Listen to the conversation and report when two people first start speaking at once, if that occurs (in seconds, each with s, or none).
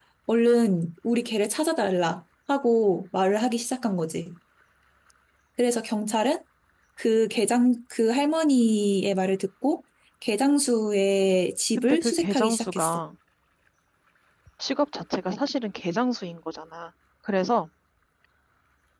11.8 s